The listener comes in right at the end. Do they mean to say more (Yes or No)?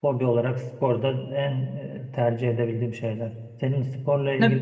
Yes